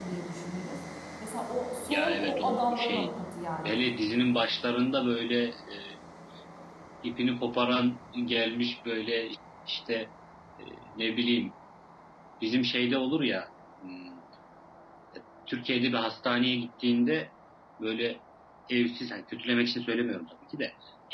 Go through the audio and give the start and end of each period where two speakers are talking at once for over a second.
1.9-3.1

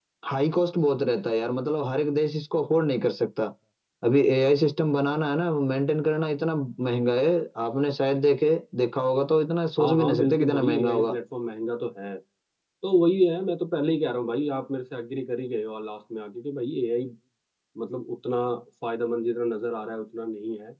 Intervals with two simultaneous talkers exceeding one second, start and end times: 9.8-11.2

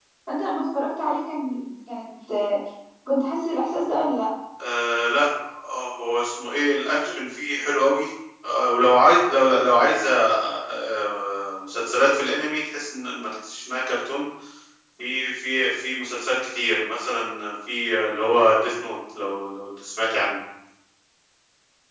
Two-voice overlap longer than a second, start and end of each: none

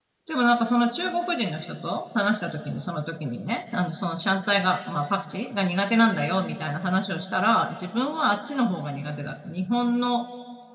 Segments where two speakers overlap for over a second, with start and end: none

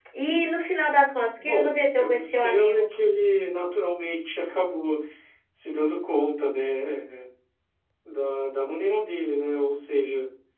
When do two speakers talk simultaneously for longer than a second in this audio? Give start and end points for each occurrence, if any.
1.4-2.8

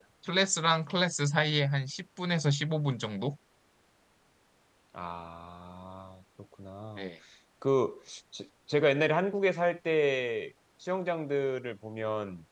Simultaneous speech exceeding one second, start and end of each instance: none

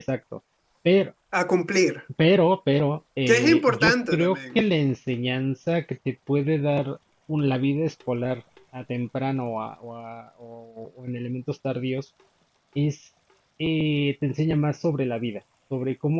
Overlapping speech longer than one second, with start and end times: 3.3-4.6

